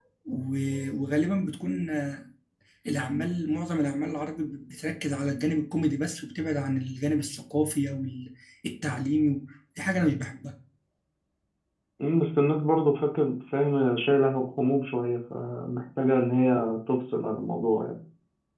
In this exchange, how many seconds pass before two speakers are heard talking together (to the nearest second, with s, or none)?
none